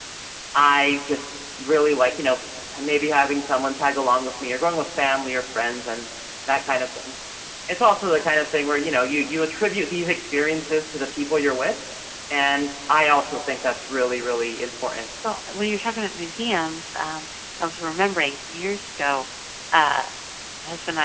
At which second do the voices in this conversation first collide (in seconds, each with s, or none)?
none